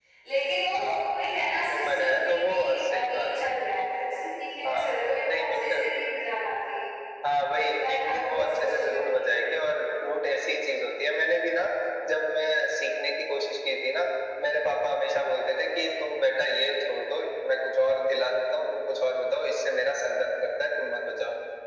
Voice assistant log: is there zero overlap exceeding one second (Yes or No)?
No